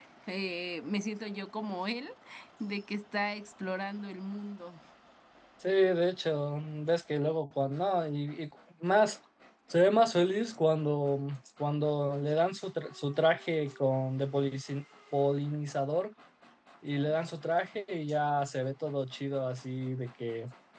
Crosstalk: none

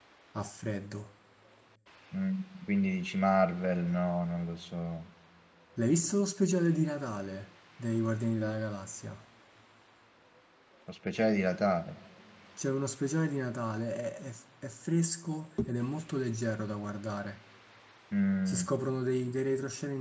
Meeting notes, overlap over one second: none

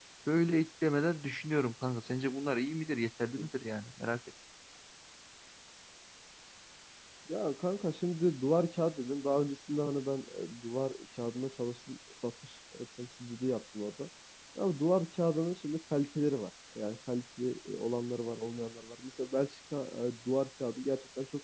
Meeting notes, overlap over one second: none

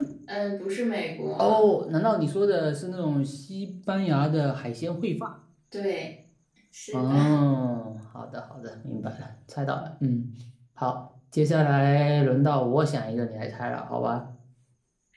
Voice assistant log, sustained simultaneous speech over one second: none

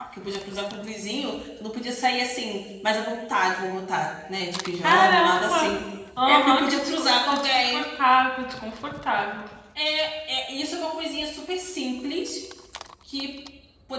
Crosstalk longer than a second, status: present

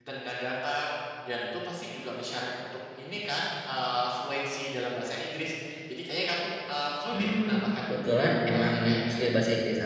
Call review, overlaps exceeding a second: present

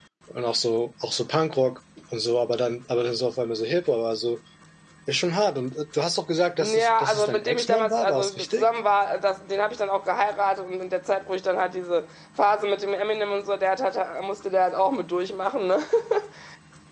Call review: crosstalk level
present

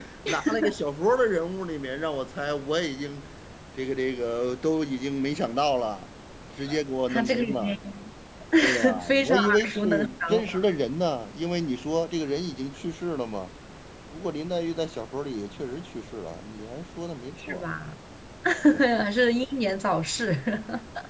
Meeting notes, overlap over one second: present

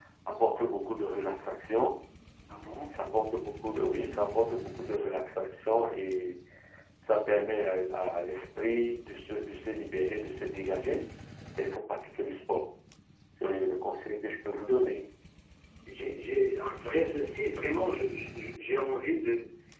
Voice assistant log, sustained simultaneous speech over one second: none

